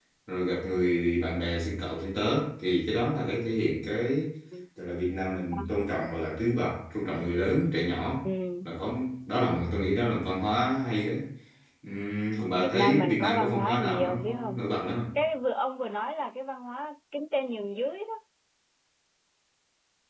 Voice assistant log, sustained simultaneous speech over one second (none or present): present